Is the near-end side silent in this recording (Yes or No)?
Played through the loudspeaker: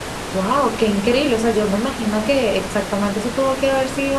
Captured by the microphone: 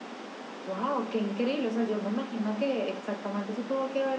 Yes